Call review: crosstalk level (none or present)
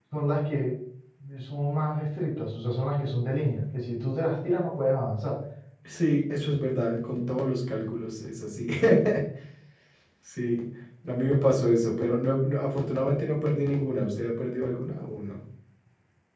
none